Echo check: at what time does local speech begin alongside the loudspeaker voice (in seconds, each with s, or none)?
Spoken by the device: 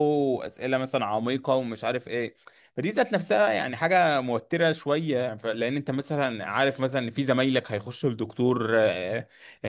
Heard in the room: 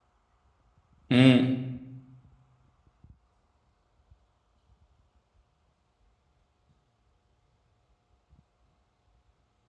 1.1 s